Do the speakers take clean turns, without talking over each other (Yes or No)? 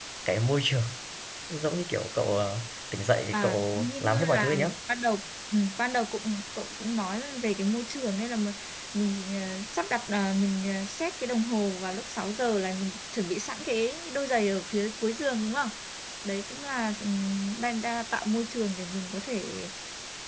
No